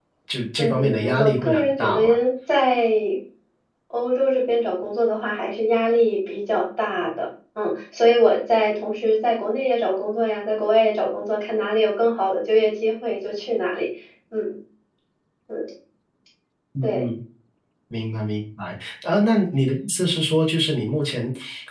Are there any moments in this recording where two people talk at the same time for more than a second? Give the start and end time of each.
0.6-2.0

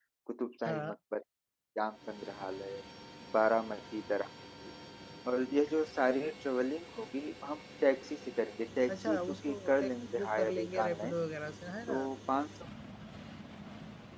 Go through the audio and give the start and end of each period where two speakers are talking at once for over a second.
8.9-11.1

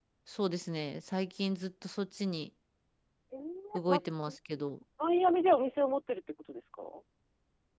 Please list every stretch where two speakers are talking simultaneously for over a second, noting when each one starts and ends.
none

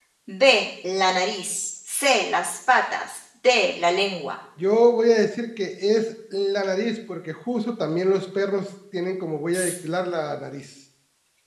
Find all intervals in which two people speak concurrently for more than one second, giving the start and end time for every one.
none

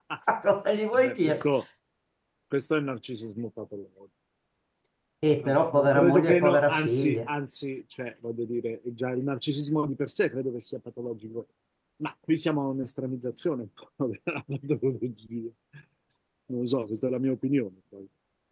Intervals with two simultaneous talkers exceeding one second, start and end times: 5.4-7.2

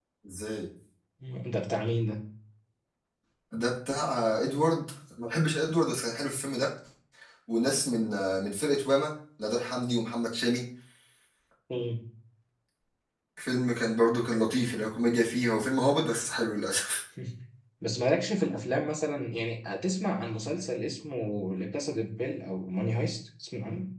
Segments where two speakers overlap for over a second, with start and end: none

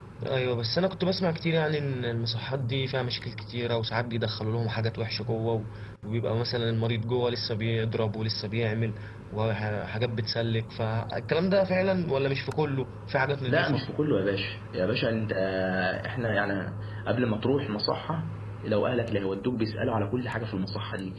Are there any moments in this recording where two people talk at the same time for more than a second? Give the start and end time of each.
none

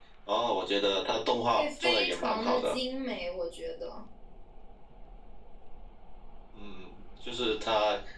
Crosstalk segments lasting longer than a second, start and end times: 1.6-2.8

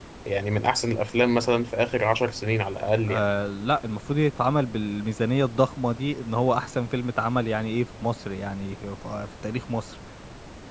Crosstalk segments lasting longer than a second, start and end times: none

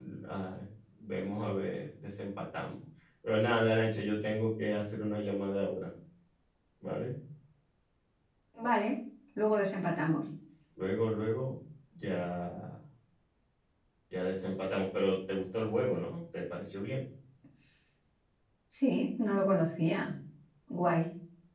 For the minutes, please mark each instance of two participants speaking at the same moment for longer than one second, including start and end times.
none

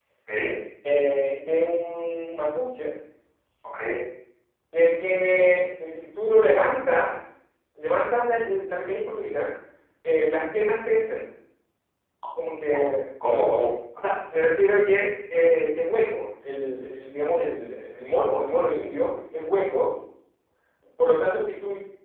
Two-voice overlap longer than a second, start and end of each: none

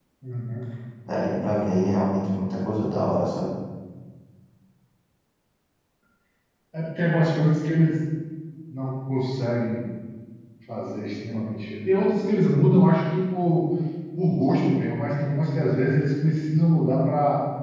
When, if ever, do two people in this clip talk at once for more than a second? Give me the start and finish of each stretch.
none

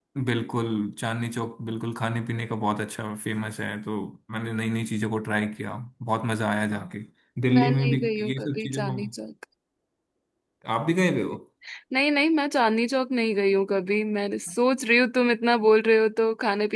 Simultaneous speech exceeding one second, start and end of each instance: 7.5-9.0

